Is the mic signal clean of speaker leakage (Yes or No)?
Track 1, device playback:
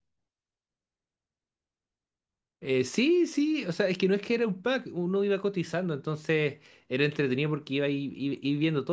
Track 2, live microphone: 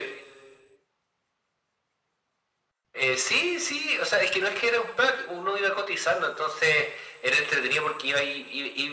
No